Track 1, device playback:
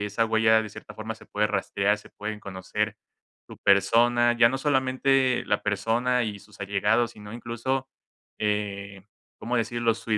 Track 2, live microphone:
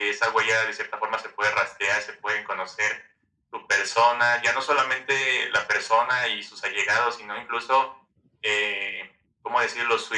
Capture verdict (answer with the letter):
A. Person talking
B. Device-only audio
B